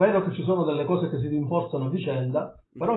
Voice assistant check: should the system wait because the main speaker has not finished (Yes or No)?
Yes